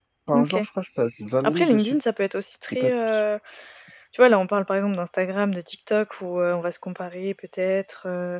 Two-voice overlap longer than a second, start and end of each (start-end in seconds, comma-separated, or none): none